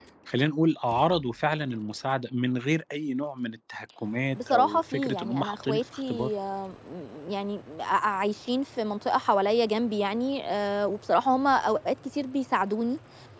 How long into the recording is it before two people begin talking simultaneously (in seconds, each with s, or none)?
4.4 s